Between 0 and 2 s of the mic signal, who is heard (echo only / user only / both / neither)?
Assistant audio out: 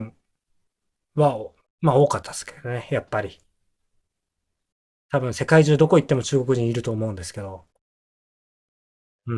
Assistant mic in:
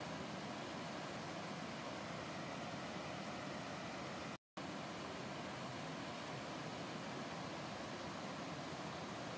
neither